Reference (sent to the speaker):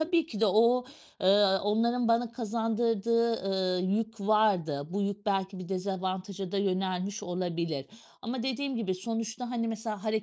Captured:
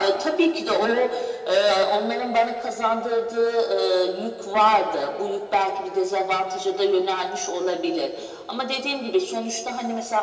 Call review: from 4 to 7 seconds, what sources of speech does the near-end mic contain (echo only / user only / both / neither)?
echo only